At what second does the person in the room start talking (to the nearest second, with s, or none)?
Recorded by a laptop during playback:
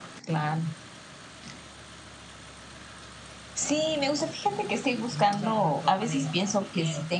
5 s